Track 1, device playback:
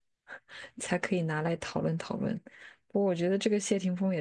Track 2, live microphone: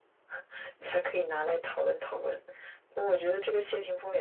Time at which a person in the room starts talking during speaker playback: none

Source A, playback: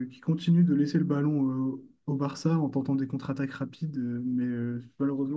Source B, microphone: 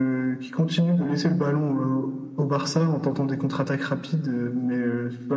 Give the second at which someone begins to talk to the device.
none

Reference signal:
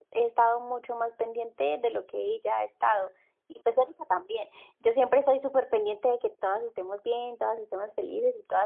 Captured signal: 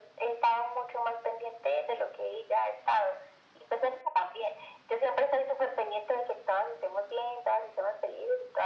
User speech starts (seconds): none

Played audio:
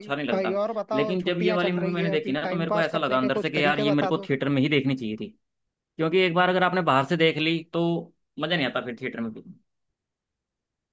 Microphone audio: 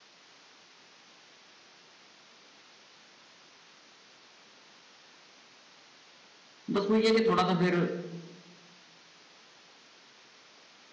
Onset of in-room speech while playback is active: 6.7 s

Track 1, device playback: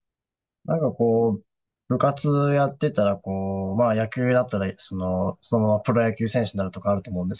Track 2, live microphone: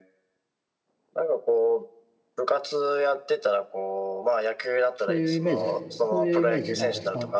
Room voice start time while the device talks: 5.0 s

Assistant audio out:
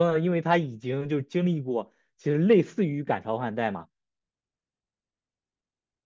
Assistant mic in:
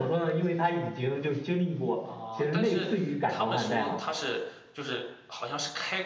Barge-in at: 2.0 s

